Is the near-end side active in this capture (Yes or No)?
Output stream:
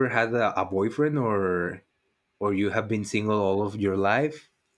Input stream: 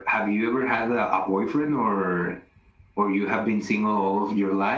No